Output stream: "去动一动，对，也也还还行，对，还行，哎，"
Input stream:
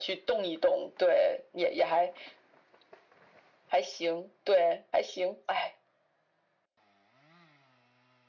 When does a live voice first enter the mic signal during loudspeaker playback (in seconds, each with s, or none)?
none